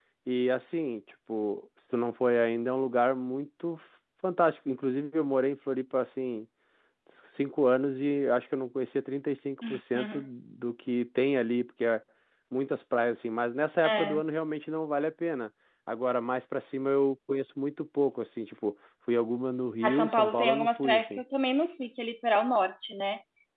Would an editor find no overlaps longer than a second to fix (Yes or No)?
No